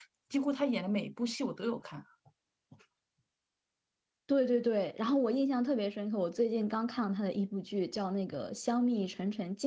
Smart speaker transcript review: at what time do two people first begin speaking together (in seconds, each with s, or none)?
none